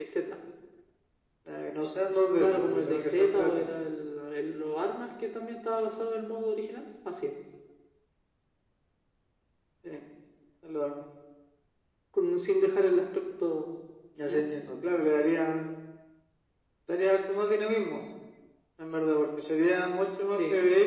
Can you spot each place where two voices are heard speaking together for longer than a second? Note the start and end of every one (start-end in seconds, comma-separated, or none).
2.4-3.7